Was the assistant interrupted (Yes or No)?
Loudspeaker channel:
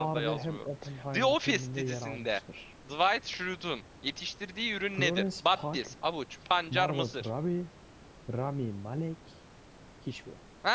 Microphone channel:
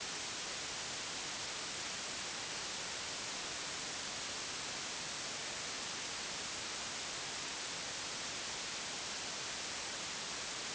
No